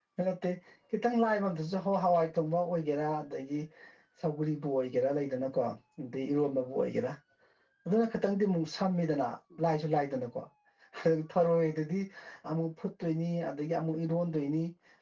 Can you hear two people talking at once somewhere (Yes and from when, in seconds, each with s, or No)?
No